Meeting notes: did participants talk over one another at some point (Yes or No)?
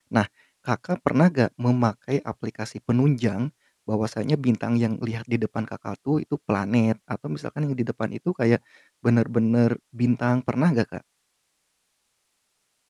No